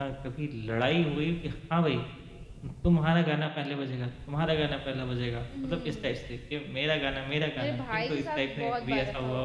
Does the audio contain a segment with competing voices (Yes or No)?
Yes